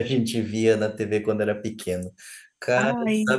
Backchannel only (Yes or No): Yes